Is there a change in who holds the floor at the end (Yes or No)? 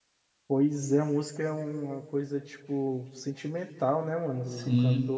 Yes